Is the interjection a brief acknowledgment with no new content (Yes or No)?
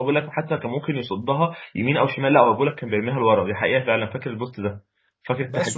No